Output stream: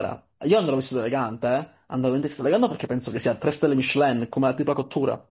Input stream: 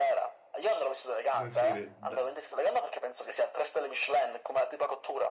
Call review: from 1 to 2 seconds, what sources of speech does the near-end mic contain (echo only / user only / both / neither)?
both